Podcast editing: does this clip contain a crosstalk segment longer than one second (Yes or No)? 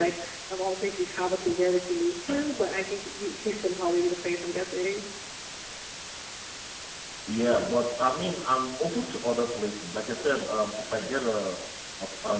No